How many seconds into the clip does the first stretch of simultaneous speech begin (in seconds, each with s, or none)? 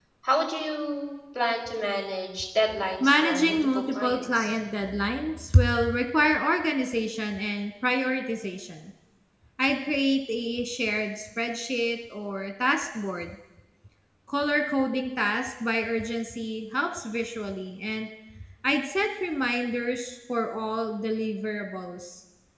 3.0 s